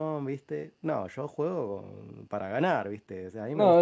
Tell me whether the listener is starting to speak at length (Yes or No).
Yes